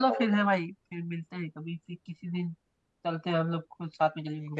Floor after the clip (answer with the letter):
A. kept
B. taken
B